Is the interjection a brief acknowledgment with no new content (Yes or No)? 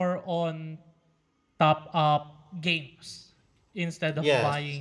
Yes